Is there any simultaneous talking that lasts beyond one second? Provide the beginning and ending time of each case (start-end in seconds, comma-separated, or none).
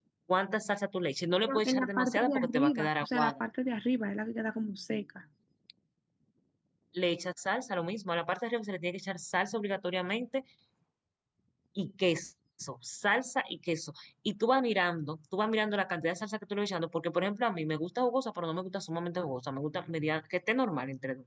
1.4-3.4